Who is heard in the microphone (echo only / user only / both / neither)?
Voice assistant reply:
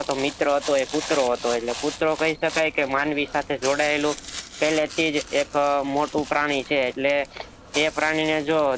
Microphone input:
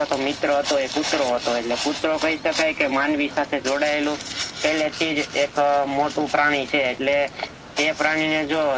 echo only